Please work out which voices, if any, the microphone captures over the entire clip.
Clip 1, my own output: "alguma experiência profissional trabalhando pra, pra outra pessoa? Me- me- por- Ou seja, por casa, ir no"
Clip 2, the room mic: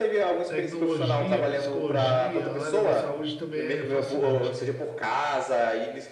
both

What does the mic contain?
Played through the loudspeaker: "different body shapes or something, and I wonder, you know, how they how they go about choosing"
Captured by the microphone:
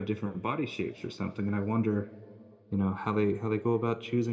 echo only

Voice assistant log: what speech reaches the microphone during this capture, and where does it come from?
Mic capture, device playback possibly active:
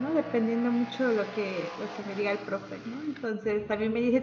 user only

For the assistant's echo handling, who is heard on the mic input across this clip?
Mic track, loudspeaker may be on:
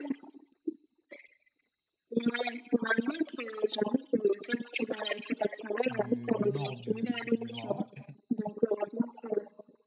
both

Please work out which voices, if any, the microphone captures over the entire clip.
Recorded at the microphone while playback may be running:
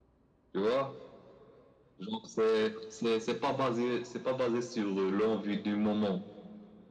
echo only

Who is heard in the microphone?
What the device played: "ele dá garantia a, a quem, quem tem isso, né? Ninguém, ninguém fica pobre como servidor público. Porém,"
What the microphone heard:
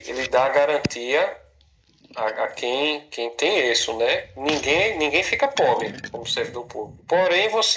echo only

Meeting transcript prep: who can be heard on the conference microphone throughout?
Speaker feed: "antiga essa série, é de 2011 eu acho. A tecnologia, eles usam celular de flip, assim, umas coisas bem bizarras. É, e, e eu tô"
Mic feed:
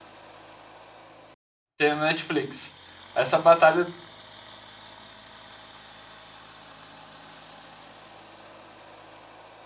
user only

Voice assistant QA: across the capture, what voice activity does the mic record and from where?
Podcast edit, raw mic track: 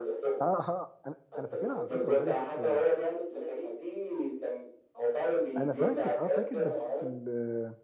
both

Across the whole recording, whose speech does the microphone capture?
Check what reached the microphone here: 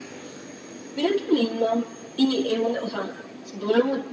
echo only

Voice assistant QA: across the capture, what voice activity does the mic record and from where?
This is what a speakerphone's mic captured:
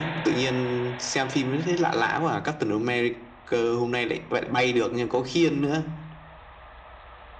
echo only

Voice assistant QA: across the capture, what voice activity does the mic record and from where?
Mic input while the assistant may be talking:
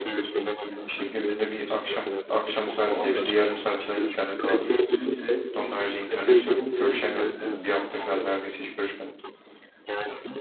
both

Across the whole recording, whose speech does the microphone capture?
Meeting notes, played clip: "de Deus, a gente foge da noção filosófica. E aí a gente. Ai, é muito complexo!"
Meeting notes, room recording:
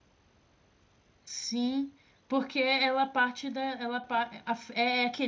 user only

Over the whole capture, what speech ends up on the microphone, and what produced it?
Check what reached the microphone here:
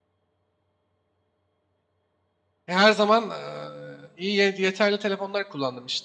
user only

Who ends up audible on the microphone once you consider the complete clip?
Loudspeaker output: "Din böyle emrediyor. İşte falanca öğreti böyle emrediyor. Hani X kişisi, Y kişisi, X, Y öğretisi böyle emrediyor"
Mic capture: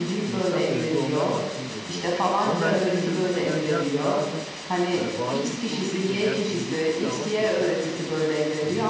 both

